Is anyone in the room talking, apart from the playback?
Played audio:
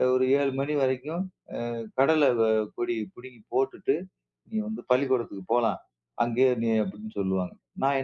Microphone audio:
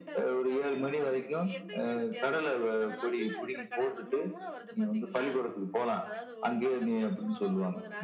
Yes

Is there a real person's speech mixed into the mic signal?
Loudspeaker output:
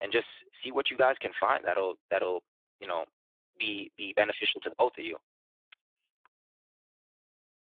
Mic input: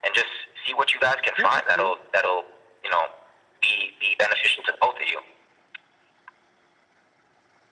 Yes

